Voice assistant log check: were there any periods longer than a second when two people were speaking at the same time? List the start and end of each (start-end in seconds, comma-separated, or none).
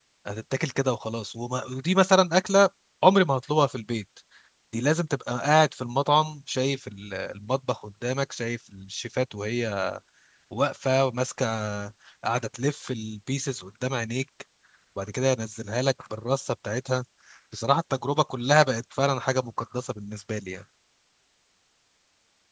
none